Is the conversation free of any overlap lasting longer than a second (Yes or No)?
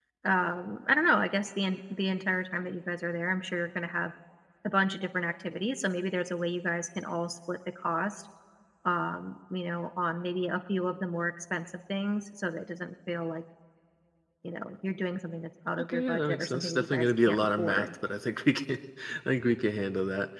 No